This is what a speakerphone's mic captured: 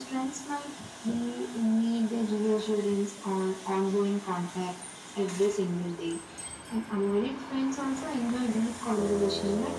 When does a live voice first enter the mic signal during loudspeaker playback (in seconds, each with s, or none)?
none